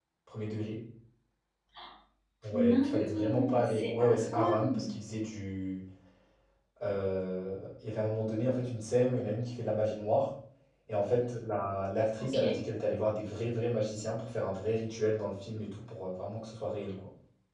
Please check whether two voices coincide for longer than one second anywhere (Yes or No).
Yes